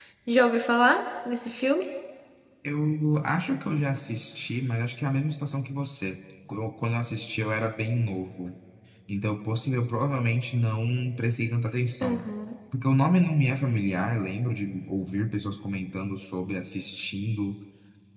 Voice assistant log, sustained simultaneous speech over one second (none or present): none